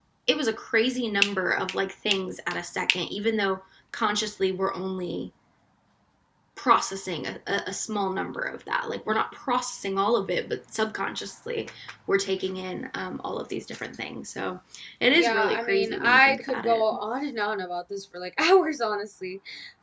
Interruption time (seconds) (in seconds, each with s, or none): 15.1 s